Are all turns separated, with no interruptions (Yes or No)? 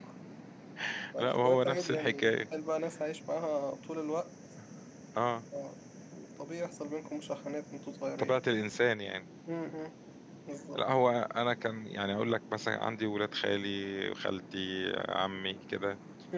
No